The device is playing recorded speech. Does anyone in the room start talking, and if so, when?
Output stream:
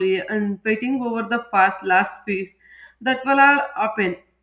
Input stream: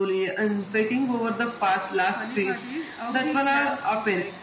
2 s

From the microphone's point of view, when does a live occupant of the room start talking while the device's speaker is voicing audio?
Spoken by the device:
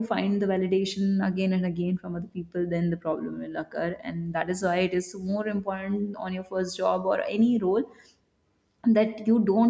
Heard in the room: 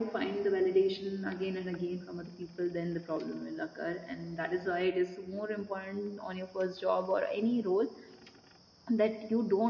none

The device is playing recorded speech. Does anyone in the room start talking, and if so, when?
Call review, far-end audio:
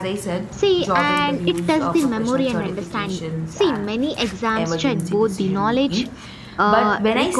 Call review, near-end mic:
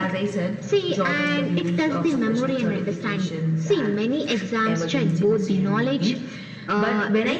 none

